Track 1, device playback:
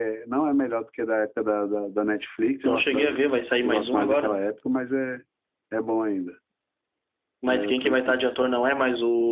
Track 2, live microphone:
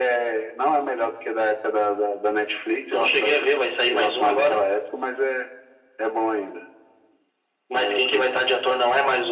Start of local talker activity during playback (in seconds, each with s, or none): none